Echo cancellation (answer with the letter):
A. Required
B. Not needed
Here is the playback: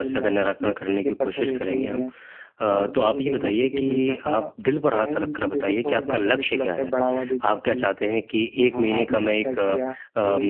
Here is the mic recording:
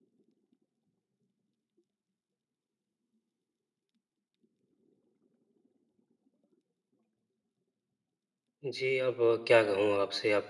B